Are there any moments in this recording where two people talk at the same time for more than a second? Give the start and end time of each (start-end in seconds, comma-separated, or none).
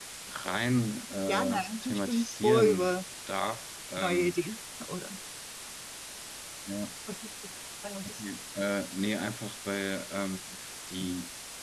1.3-3.0